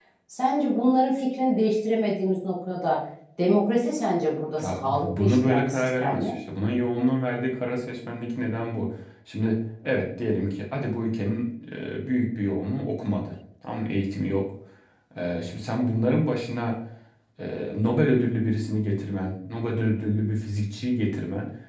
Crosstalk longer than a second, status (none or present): present